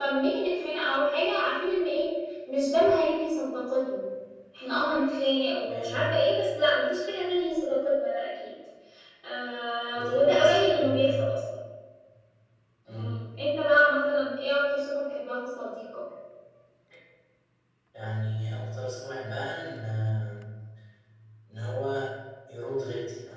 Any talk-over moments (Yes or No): Yes